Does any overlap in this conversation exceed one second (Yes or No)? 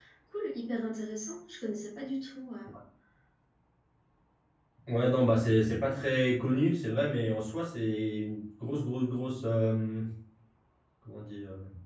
No